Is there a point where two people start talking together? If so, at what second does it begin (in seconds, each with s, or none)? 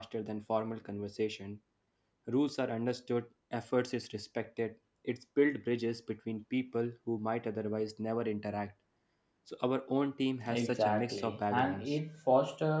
10.5 s